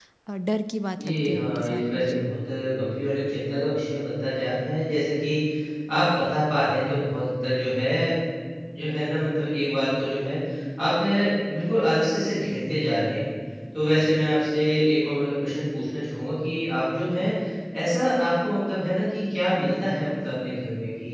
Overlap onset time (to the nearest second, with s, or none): 1 s